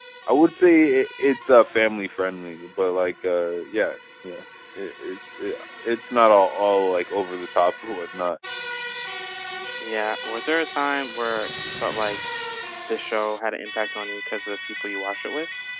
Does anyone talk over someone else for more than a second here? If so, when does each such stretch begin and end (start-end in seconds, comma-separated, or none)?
none